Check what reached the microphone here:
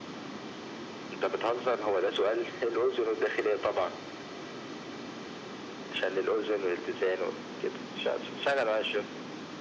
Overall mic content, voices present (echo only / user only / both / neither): echo only